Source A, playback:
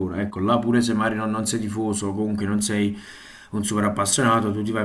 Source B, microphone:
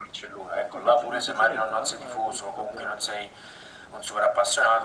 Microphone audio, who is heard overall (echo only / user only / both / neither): both